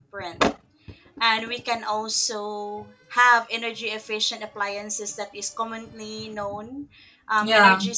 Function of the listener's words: listening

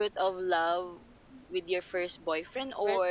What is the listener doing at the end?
listening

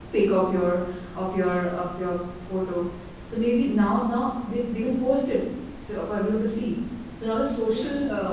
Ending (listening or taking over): listening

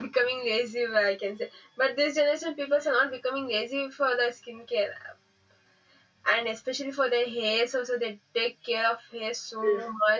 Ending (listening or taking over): taking over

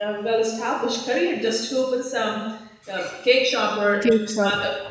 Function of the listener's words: listening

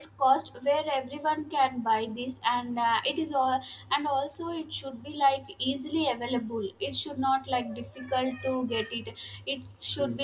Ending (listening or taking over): listening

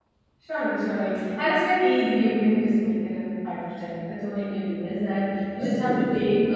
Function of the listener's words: listening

